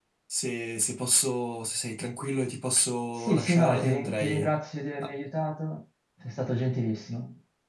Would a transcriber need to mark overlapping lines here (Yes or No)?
Yes